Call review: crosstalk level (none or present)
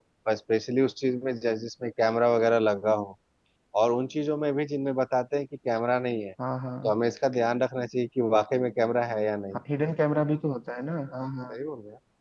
none